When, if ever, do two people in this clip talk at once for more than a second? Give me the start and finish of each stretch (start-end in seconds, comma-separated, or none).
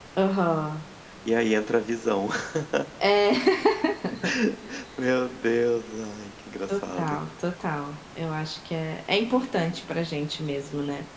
none